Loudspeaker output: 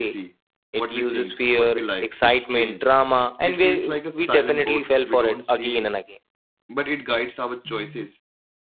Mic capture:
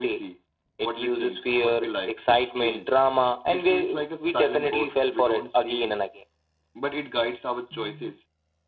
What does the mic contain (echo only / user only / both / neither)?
echo only